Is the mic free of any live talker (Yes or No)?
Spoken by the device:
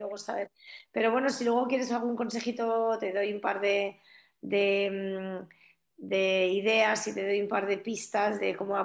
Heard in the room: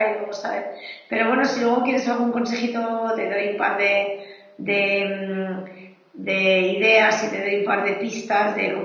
Yes